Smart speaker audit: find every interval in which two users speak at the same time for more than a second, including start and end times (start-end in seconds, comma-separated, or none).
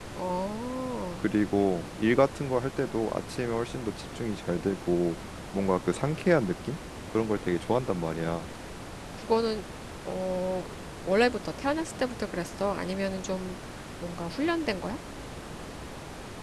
none